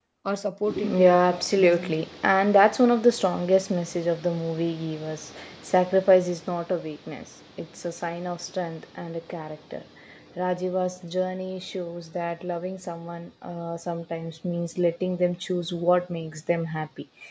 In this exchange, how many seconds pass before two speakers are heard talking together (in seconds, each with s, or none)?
0.8 s